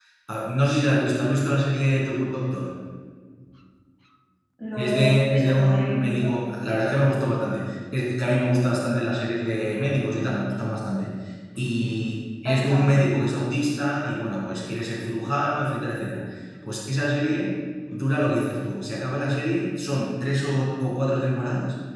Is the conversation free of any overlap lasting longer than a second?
No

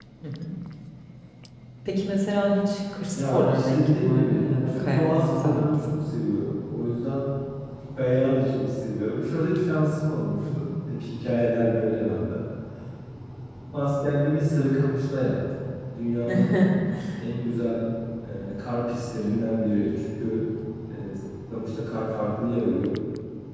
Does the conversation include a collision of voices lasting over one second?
Yes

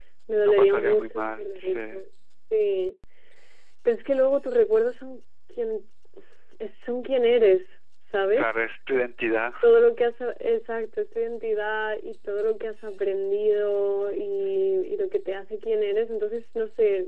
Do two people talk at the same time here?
Yes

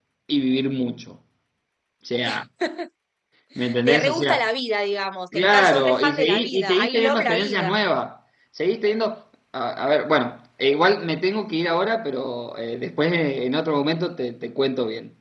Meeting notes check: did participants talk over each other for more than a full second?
Yes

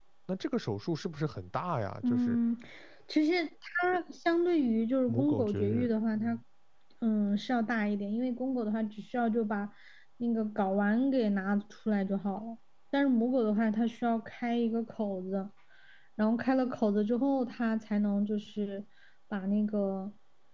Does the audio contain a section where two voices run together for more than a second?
Yes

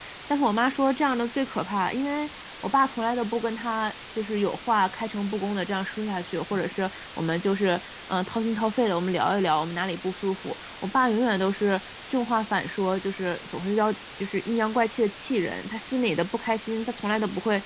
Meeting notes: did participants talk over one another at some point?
No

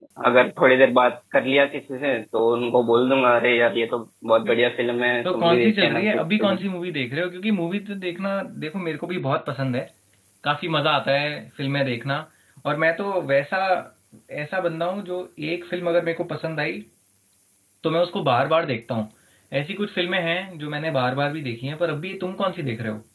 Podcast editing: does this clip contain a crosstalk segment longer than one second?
Yes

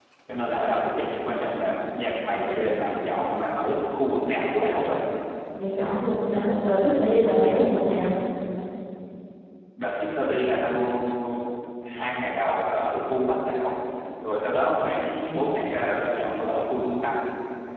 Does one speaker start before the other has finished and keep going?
No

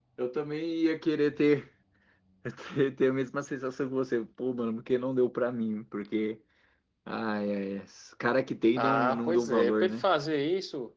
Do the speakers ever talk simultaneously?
Yes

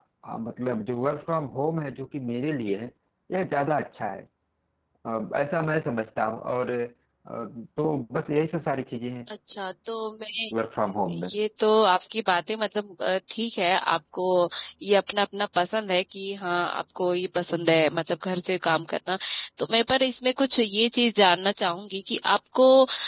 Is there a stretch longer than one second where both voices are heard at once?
No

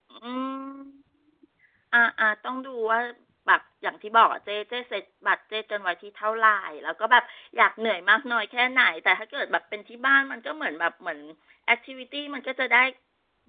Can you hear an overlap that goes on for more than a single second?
No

